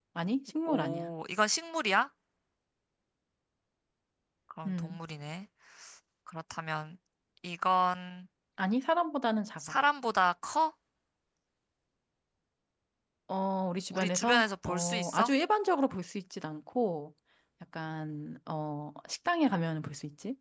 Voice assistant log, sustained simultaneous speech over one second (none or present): present